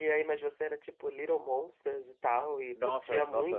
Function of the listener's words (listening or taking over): taking over